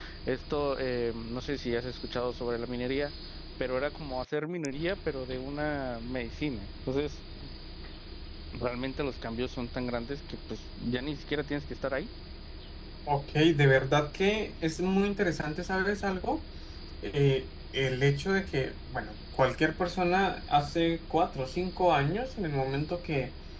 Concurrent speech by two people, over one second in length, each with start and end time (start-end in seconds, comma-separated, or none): none